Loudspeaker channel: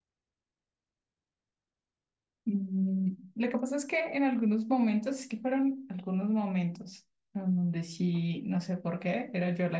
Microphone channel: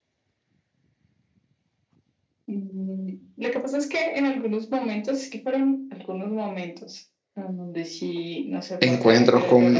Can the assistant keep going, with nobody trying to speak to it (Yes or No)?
No